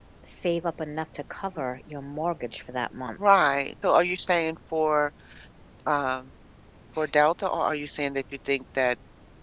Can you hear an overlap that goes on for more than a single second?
No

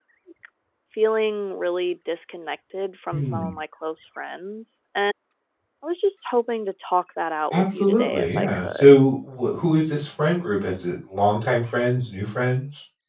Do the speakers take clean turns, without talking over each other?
No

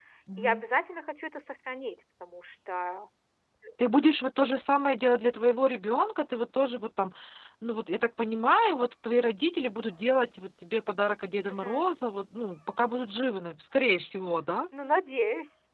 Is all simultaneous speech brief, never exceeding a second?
Yes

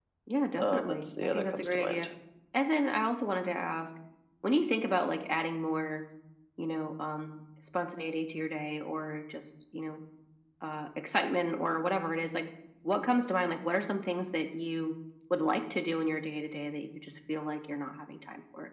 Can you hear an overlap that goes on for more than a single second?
Yes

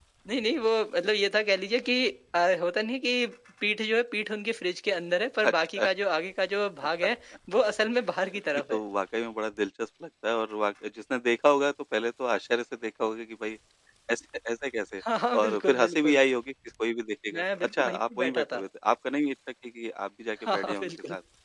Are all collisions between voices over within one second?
No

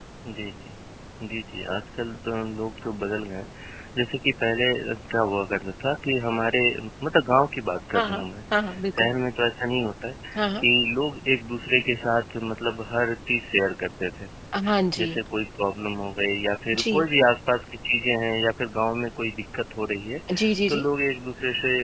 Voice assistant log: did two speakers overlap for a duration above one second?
No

